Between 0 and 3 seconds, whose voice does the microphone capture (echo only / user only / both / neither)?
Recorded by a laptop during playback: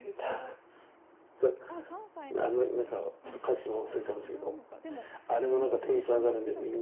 both